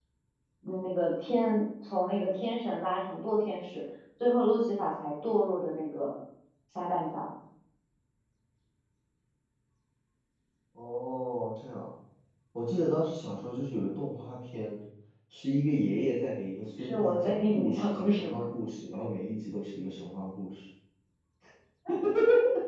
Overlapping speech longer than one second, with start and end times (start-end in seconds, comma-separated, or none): 16.8-18.3